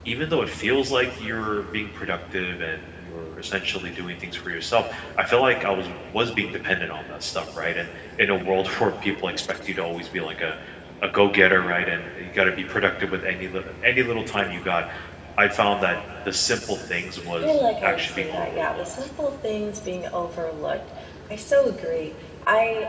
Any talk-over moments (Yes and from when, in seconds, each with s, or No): Yes, from 17.4 s